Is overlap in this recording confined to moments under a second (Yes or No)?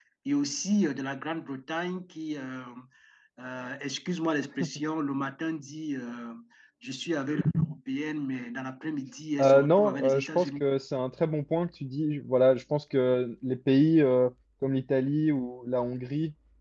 No